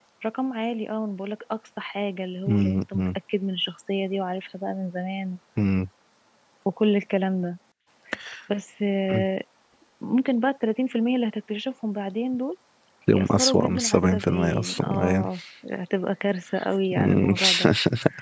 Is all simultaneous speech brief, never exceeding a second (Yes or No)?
No